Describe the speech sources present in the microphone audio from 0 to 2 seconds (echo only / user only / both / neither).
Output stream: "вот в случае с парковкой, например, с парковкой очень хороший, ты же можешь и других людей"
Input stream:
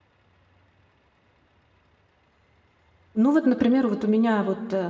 neither